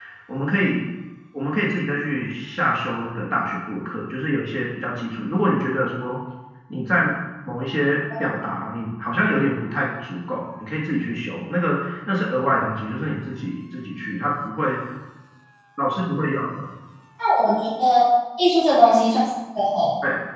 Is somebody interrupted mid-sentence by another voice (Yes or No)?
No